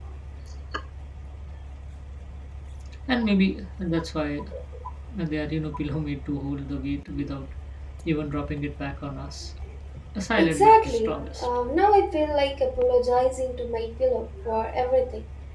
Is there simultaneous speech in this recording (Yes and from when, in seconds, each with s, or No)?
Yes, from 10.4 s